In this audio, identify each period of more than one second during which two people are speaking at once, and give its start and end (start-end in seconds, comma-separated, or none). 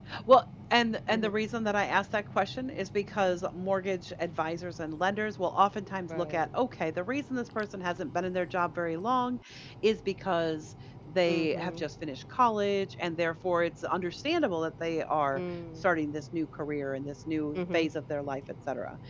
none